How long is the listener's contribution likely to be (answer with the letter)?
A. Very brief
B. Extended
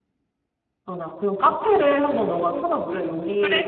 B